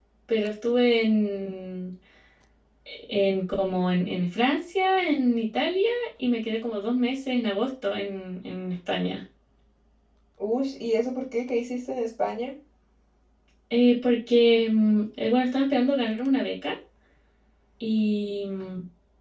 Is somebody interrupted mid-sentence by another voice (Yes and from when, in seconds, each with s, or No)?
No